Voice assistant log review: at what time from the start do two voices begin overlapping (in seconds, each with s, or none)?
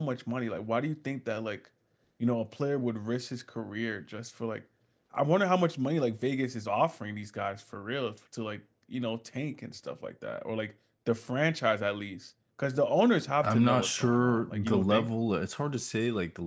13.4 s